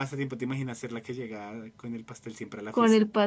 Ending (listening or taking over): taking over